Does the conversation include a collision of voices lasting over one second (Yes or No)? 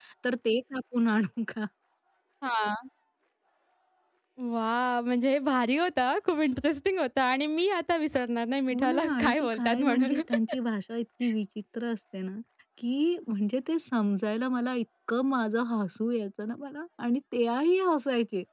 Yes